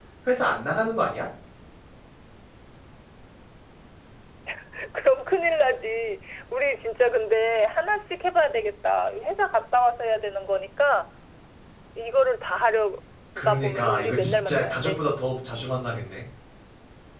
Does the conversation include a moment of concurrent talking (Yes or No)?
Yes